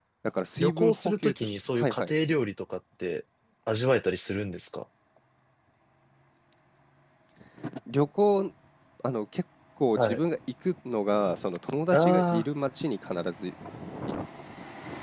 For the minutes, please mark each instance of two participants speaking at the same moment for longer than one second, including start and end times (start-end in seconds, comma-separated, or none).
0.6-2.1